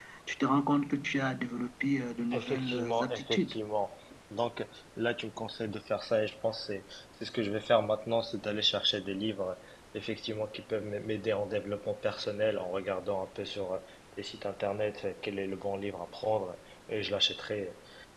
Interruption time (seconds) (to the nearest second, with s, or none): 2 s